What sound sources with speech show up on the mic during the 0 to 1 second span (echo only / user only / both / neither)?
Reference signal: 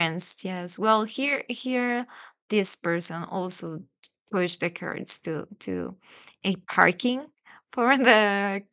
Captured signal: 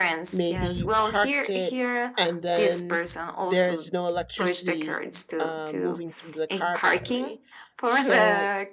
both